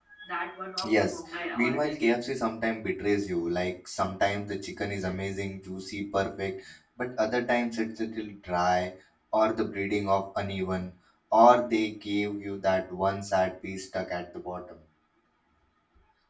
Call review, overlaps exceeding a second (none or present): present